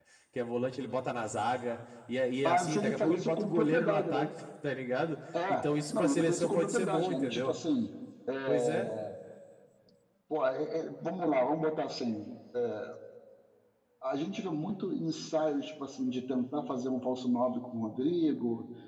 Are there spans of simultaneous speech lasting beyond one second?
Yes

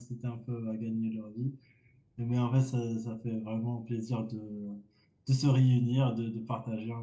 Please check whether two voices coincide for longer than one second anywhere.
No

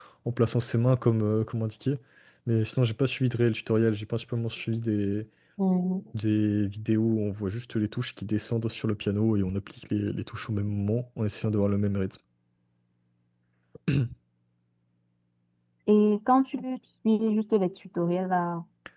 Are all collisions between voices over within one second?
Yes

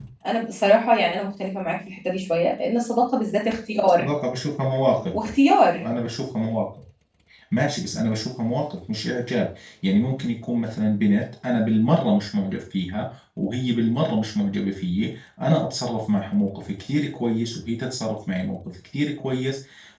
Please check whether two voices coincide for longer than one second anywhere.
No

